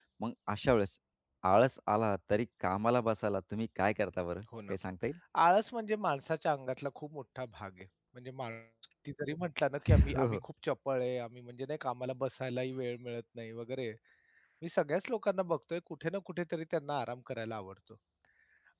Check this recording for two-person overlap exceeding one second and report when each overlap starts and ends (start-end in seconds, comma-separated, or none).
none